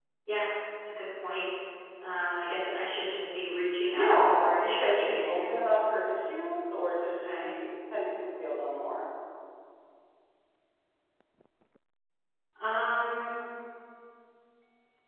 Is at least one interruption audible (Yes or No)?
Yes